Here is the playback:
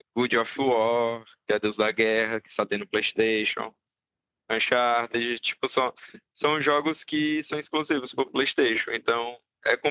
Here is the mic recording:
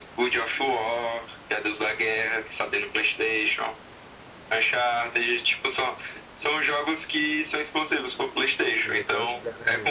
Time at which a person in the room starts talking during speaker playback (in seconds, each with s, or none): 8.8 s